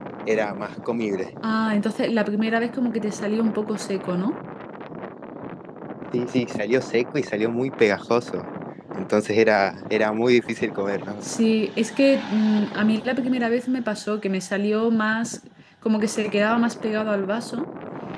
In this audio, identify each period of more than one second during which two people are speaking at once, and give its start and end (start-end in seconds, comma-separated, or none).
none